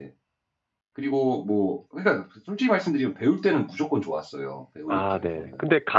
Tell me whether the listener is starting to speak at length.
Yes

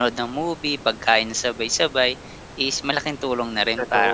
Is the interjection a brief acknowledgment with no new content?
No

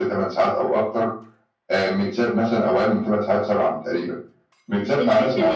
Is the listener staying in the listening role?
No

